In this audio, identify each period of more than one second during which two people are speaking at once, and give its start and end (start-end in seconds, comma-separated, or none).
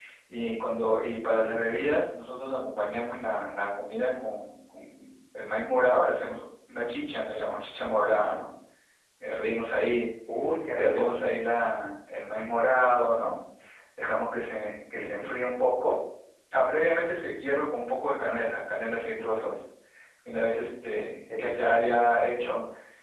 none